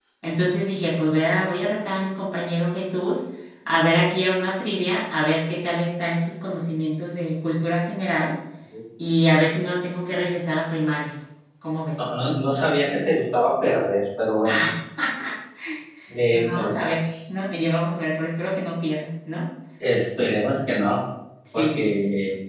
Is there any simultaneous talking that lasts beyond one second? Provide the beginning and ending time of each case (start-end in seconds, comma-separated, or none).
16.3-17.7